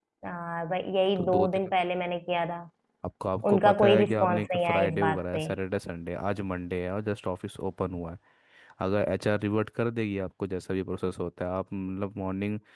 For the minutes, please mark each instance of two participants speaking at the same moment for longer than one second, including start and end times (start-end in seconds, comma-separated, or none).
3.5-5.5